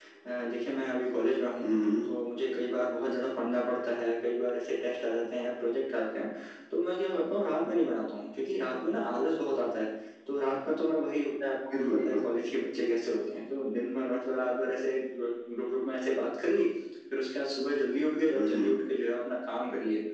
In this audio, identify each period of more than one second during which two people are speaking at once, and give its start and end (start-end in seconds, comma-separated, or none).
none